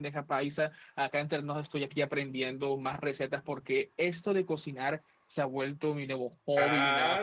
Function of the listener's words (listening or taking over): taking over